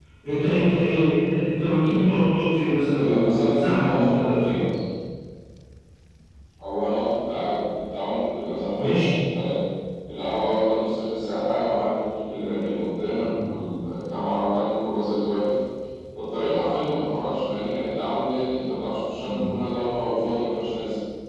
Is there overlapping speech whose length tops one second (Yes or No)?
Yes